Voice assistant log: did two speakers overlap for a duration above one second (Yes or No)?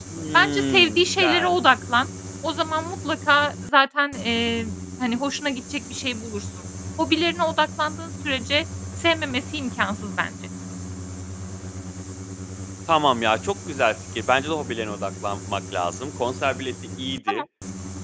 Yes